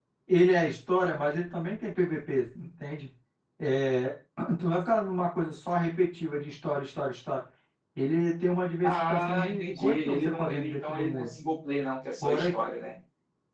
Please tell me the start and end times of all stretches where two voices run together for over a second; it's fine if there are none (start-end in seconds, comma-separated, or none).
8.8-11.2